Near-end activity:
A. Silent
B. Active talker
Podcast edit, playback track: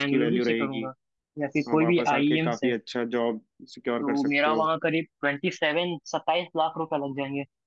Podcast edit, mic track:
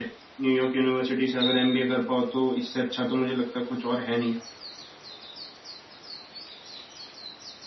B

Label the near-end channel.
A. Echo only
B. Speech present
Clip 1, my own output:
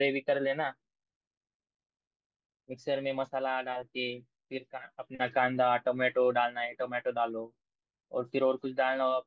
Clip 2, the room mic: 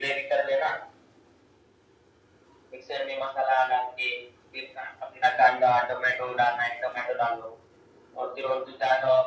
A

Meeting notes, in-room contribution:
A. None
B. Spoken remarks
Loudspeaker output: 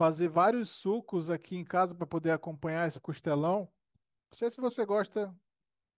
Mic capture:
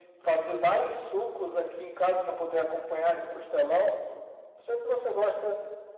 A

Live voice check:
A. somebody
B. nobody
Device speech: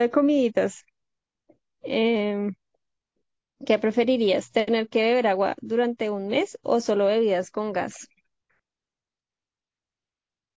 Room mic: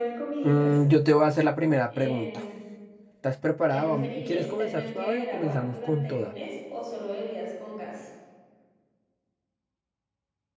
A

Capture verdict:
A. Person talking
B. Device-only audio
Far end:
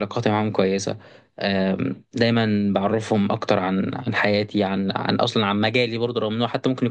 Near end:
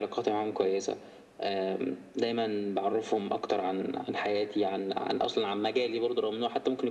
B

